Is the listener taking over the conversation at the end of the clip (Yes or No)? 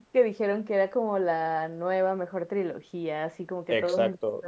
Yes